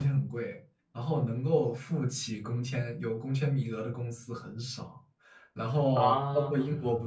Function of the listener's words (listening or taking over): listening